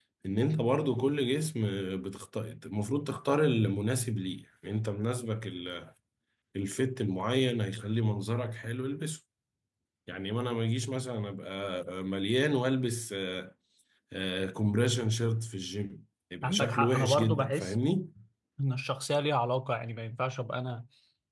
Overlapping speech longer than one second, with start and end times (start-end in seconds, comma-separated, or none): 16.4-17.8